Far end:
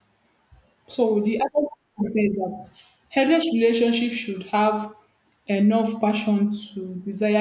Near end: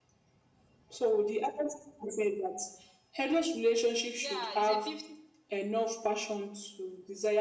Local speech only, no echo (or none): Yeah, it's a 50.